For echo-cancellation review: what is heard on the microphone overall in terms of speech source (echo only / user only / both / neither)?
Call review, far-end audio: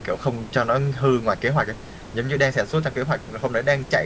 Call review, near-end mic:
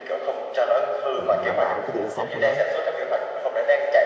both